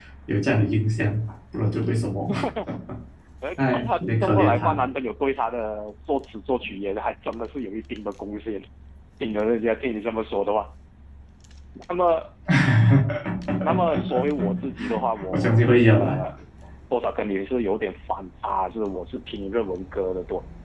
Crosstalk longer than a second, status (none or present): present